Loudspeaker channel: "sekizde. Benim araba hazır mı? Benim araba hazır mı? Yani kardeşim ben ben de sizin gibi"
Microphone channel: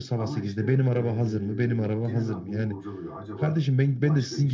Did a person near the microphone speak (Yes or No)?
Yes